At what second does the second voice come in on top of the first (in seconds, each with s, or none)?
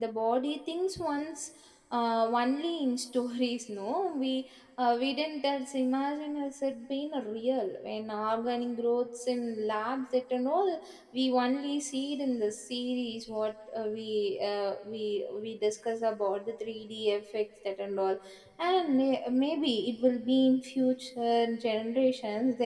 none